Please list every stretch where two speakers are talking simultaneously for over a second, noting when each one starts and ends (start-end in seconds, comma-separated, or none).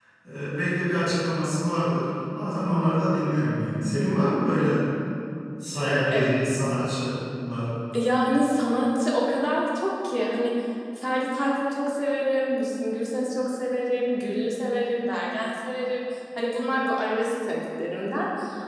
none